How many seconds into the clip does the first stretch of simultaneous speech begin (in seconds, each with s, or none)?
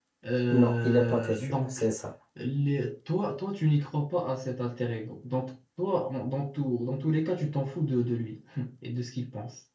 0.5 s